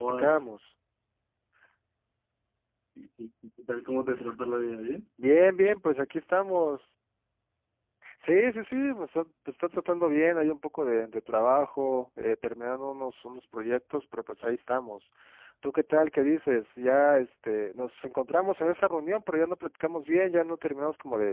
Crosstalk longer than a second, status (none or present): none